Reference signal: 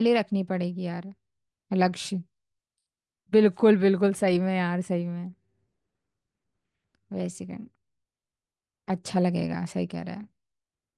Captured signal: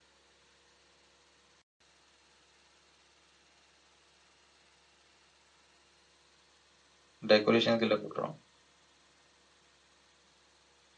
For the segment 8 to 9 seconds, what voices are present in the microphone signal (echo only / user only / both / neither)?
user only